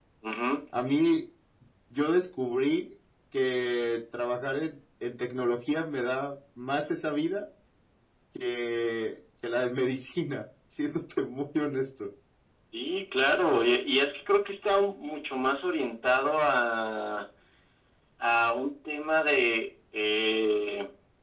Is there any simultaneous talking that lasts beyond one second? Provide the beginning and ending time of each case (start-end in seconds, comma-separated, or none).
none